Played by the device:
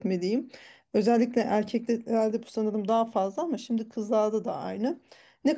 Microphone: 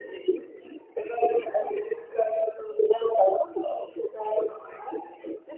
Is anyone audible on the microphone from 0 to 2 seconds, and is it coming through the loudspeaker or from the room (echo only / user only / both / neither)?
echo only